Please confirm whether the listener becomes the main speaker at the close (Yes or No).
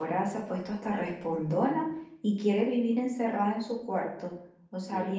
No